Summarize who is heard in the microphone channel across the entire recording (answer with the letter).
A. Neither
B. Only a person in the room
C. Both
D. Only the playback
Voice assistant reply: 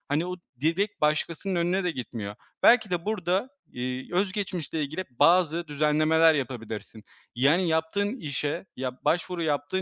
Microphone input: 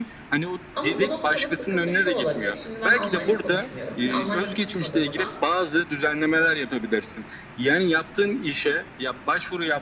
C